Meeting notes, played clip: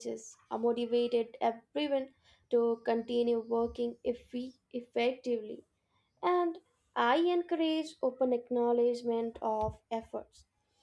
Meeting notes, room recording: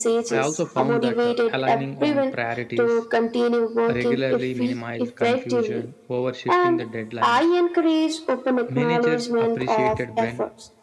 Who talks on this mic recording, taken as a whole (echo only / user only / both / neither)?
both